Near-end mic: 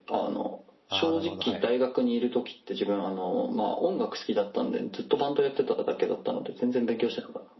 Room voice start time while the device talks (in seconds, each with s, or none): 0.9 s